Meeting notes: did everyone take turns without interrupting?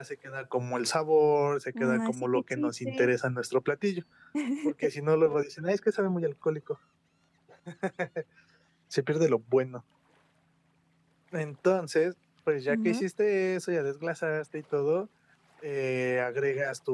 No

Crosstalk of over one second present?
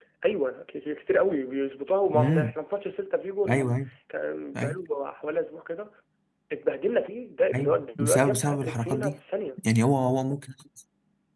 Yes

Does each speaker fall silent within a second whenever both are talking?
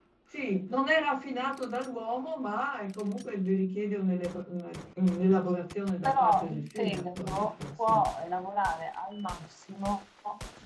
No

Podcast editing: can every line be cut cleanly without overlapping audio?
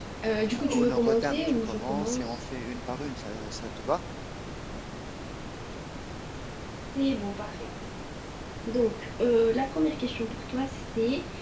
No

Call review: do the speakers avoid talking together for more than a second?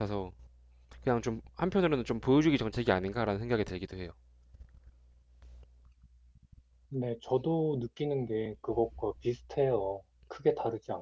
Yes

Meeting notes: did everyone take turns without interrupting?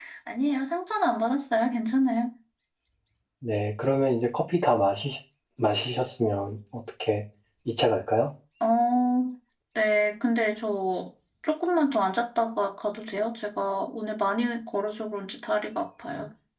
Yes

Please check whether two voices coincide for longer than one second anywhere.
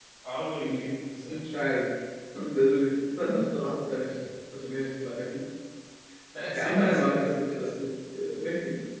Yes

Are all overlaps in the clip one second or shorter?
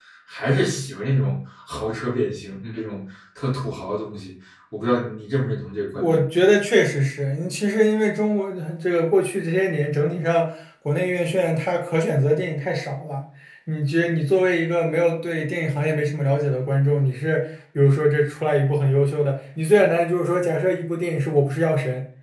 Yes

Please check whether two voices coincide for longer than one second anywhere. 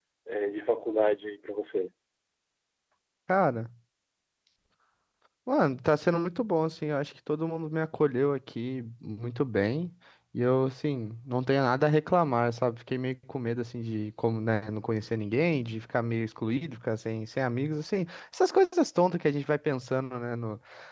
No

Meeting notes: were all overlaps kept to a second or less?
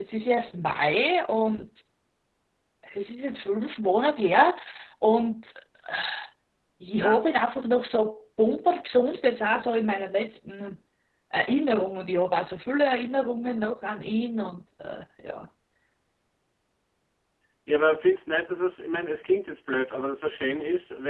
Yes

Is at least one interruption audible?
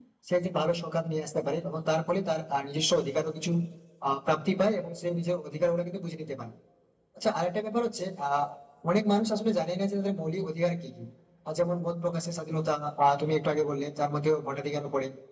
No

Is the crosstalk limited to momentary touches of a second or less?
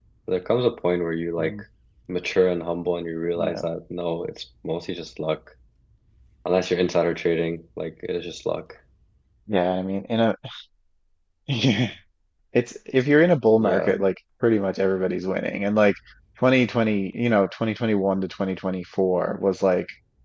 Yes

